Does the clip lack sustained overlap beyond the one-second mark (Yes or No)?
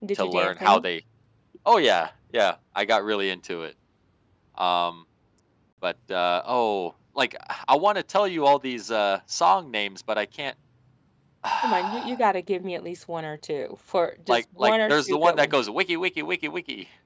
No